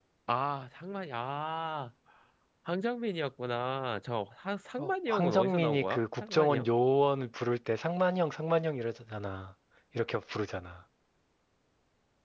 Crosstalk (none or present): present